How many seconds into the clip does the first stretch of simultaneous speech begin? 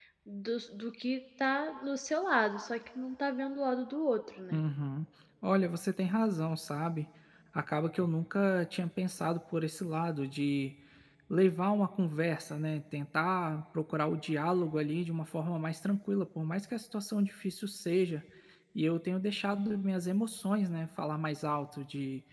none

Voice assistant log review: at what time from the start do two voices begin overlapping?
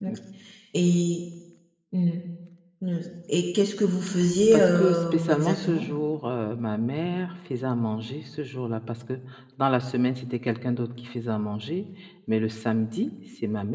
4.5 s

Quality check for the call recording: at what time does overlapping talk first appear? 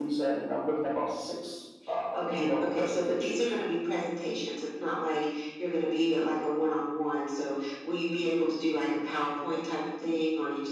2.1 s

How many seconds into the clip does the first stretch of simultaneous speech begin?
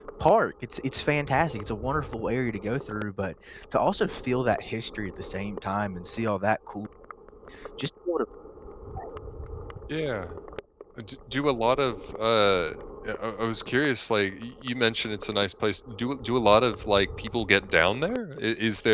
none

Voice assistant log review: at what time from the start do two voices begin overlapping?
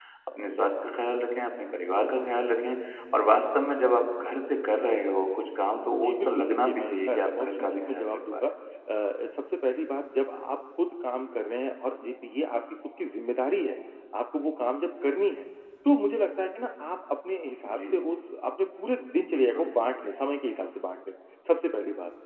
5.9 s

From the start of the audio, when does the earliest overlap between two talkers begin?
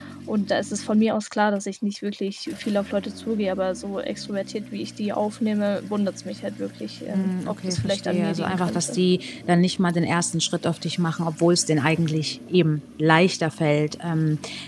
7.1 s

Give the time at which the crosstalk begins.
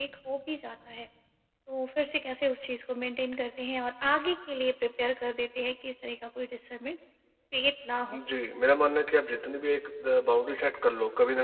none

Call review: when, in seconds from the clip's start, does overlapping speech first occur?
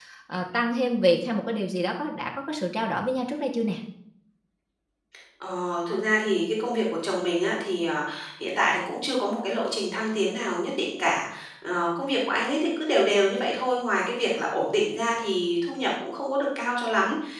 none

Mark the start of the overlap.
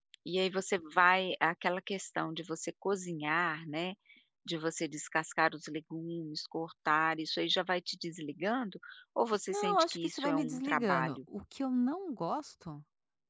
9.5 s

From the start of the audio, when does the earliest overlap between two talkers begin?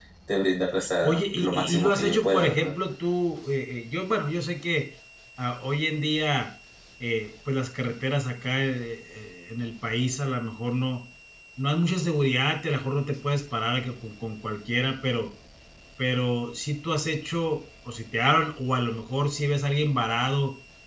1.0 s

